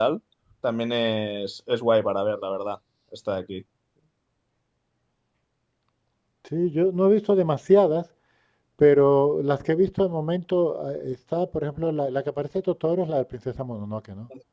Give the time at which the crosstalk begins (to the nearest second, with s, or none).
none